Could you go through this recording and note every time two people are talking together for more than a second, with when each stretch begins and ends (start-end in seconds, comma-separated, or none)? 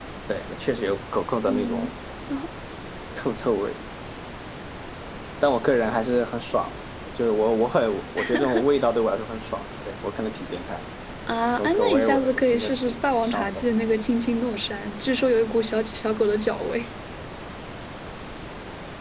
11.6-13.6